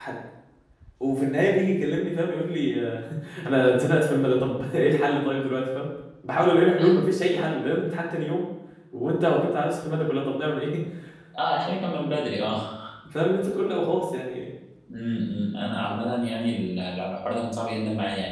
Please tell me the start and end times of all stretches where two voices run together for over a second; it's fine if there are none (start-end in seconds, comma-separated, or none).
none